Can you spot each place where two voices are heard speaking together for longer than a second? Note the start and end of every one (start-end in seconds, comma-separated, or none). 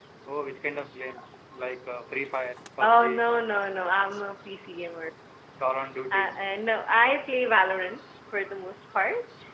none